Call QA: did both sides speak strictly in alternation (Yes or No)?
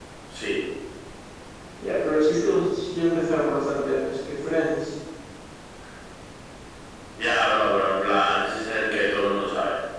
Yes